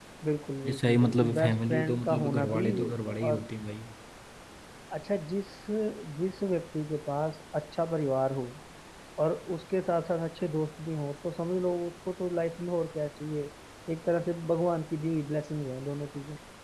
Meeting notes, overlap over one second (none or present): present